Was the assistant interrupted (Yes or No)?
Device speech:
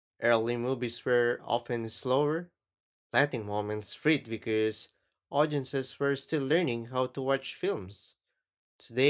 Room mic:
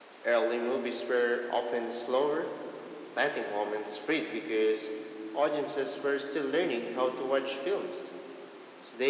No